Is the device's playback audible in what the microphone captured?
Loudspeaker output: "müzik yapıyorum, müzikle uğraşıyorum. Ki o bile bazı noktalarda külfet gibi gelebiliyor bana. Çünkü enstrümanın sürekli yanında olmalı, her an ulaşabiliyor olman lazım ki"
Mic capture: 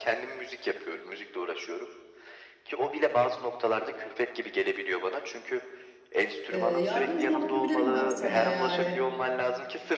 Yes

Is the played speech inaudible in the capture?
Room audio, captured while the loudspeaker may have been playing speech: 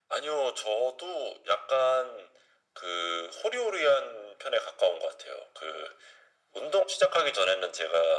No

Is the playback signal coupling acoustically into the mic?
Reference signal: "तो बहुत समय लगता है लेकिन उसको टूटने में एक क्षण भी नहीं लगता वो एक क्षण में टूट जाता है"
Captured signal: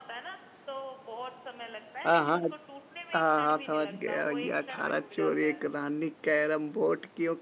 Yes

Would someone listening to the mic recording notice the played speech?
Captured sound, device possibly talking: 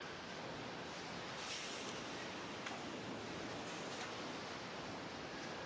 No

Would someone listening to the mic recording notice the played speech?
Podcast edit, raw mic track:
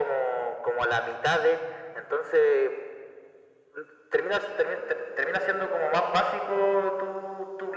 Yes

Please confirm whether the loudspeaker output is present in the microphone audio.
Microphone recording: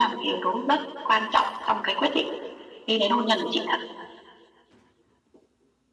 Yes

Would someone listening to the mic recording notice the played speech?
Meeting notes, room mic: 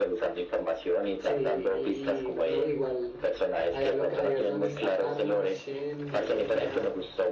Yes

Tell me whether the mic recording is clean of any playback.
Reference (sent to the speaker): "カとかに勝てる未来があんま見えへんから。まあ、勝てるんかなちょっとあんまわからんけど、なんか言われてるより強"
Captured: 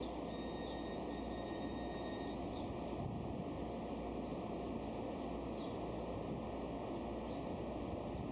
Yes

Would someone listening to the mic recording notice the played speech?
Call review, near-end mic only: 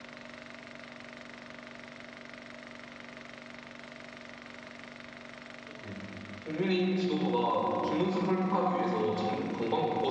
No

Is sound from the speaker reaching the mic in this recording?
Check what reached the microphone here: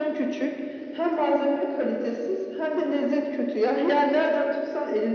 Yes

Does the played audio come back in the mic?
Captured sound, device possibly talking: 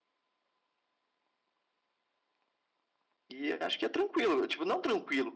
No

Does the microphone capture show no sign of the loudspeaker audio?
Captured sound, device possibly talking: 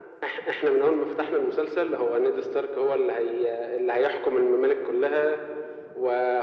No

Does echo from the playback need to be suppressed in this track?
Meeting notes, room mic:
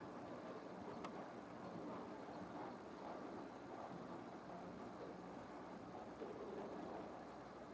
No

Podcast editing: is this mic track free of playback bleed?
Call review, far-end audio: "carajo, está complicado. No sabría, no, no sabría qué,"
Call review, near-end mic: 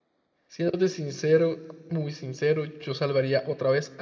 Yes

